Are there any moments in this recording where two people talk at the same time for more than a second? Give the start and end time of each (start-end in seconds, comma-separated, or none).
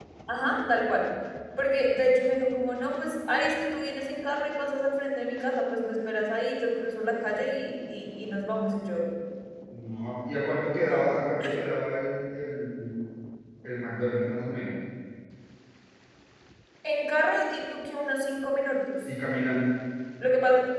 none